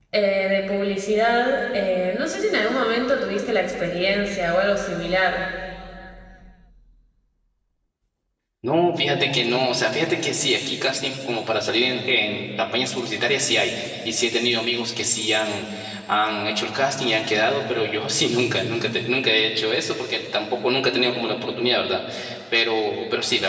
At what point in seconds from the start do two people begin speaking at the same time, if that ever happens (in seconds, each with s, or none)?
none